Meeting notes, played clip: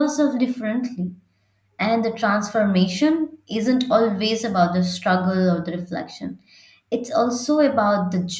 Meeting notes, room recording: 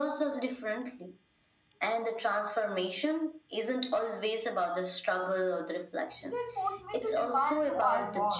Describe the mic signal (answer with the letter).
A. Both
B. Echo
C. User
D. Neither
A